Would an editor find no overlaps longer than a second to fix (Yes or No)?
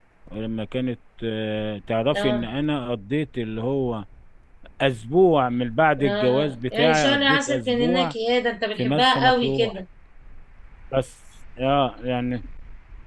No